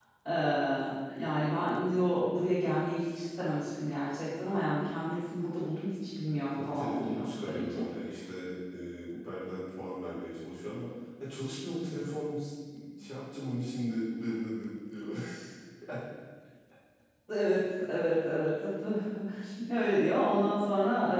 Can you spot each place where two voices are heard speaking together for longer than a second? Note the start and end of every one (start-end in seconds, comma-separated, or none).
6.5-7.8